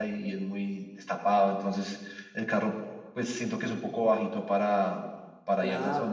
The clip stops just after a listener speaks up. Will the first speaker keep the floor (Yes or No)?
No